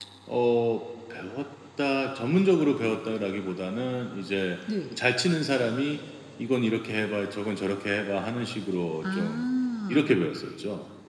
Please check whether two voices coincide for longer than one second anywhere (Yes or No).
No